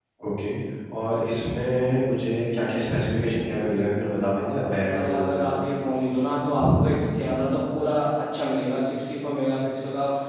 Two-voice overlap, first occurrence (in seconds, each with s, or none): 4.0 s